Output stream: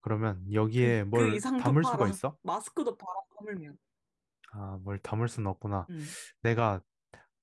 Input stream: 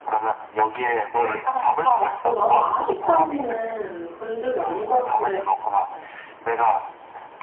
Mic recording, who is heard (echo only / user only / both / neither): both